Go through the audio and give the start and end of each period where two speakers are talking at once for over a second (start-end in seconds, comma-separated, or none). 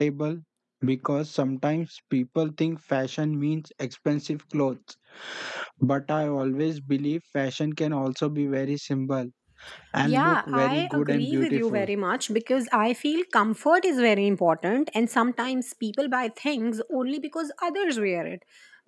10.0-11.9